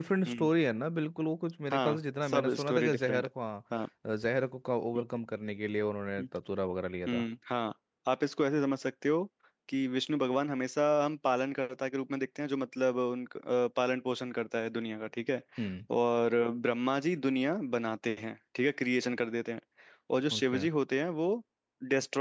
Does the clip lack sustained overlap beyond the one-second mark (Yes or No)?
No